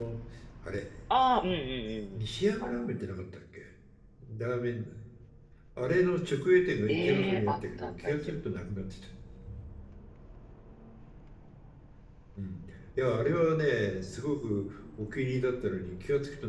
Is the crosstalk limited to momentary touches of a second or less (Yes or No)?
No